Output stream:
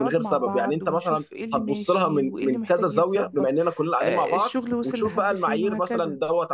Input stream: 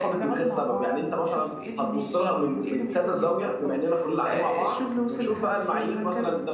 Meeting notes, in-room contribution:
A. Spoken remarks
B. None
B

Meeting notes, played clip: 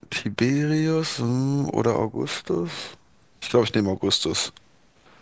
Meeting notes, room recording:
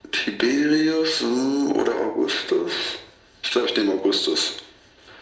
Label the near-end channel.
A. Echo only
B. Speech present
A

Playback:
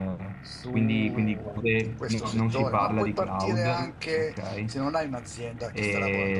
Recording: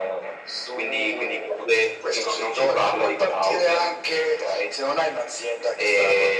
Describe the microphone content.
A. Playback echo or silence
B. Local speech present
A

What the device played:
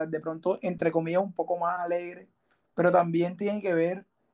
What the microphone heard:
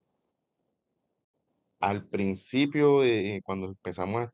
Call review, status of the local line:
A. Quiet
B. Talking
B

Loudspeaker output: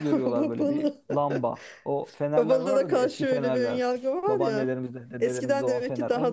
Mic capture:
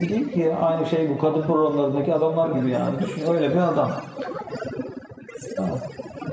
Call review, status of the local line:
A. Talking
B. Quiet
A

